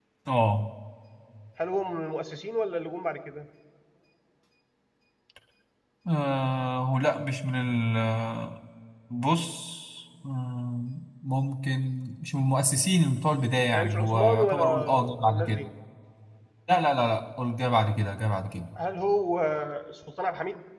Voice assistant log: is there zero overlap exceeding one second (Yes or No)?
No